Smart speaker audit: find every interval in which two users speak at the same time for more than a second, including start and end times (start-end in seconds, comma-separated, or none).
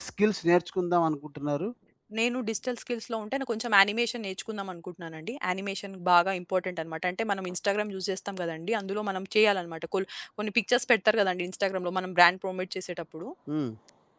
none